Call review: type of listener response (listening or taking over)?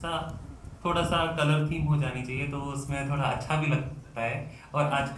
listening